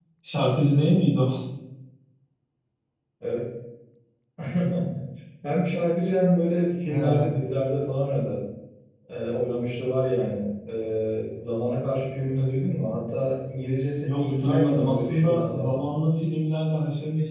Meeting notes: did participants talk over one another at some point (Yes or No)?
Yes